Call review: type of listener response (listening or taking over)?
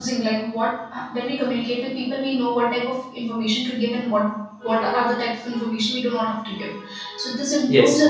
listening